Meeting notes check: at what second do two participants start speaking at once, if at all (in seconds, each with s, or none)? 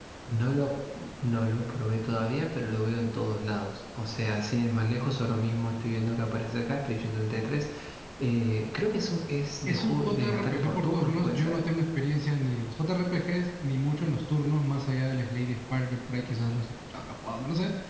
9.7 s